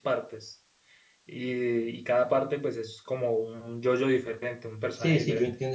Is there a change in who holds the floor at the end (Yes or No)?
Yes